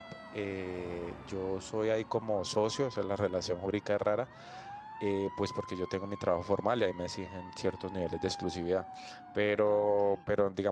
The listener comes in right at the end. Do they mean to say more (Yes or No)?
No